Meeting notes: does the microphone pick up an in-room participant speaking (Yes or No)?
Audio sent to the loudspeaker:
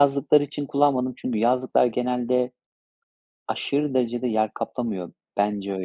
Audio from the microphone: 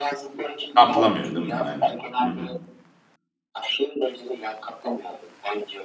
Yes